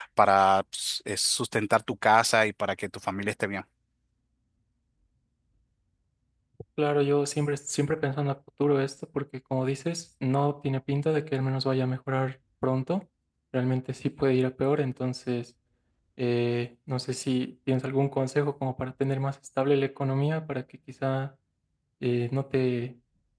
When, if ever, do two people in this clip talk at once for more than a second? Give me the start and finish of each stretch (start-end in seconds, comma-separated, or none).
none